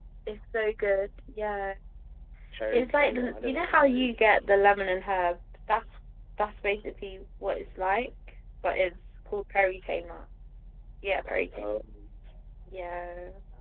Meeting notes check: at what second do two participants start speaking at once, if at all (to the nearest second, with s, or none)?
3 s